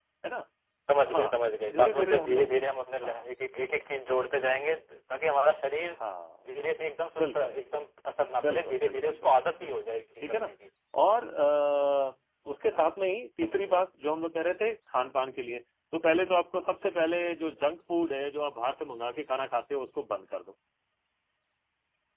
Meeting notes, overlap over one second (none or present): present